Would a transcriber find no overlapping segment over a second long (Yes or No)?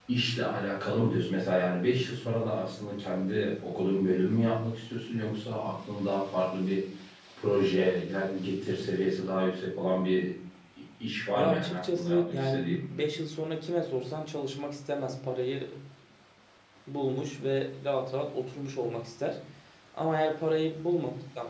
No